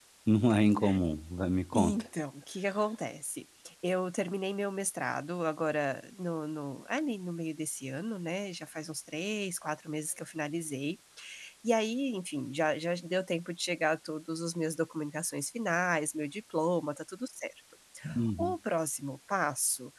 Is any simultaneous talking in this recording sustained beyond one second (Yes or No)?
No